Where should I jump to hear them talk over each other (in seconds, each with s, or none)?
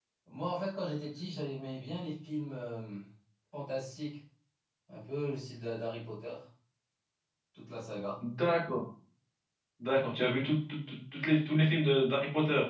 none